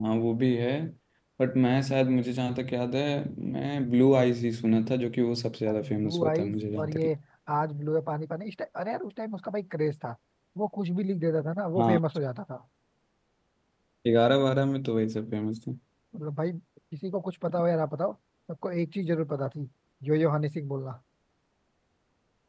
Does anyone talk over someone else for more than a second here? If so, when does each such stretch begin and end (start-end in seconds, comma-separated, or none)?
5.8-7.1